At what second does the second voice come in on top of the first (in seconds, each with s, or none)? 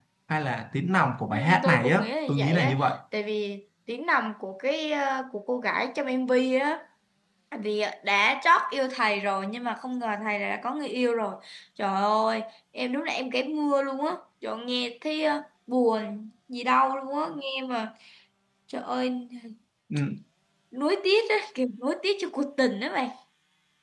1.3 s